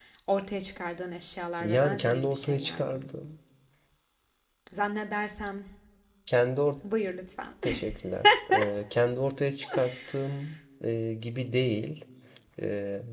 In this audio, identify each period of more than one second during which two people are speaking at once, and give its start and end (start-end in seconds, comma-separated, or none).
1.6-3.0